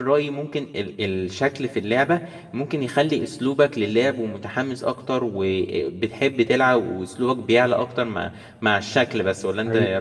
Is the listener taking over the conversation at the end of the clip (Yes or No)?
Yes